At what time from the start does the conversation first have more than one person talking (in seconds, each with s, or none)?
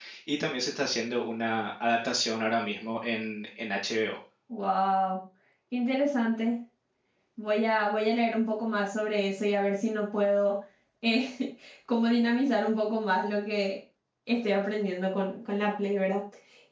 none